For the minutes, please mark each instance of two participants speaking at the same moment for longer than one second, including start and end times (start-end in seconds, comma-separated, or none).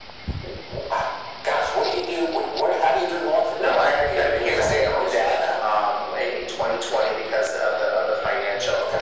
3.6-5.4